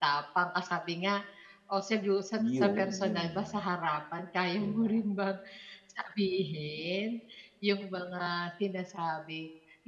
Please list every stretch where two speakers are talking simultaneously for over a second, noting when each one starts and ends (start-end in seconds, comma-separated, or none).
2.4-3.6